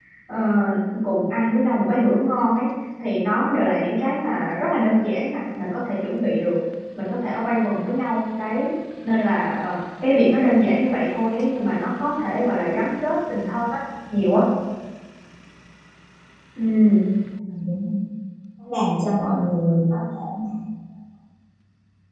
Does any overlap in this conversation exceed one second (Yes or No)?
No